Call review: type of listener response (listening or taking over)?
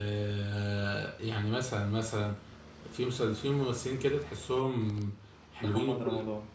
listening